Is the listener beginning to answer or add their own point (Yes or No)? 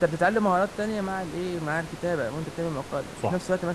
Yes